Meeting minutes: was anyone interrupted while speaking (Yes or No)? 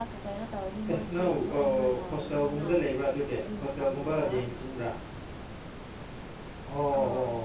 Yes